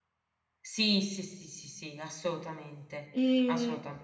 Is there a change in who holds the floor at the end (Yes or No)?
Yes